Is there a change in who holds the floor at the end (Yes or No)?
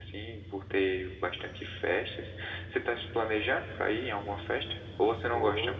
Yes